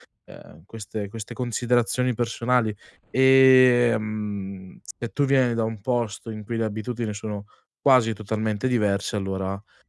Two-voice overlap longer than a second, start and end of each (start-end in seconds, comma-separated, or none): none